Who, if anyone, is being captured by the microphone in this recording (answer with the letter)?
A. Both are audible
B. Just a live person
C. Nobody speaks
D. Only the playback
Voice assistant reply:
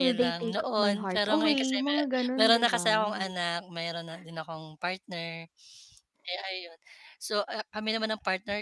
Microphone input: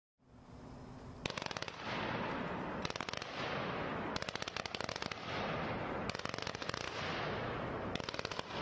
C